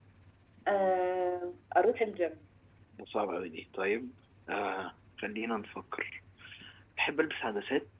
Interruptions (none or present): none